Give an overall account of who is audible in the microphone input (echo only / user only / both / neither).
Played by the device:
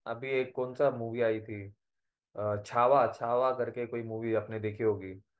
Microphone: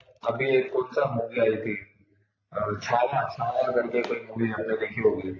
echo only